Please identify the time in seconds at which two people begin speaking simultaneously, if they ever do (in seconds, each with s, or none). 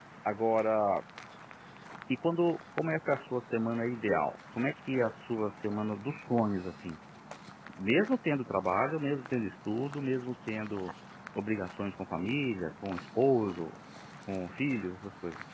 none